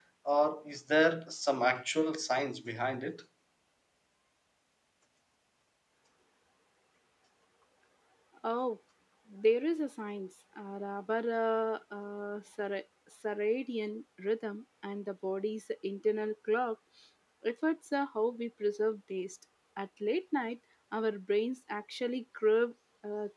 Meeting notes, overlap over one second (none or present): none